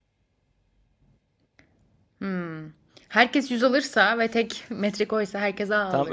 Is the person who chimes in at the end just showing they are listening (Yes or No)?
No